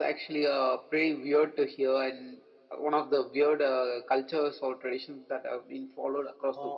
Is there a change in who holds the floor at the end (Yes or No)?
Yes